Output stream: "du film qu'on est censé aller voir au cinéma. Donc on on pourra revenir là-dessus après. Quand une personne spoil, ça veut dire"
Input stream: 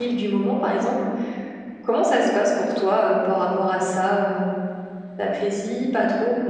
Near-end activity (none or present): present